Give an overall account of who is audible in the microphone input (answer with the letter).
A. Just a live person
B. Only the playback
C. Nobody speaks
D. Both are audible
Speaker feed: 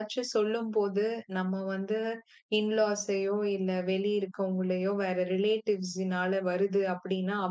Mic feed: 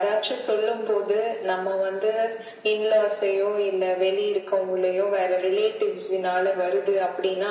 B